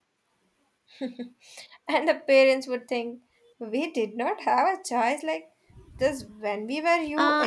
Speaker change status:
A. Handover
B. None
A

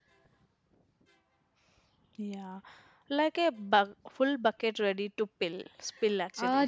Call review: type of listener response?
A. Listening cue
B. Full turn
B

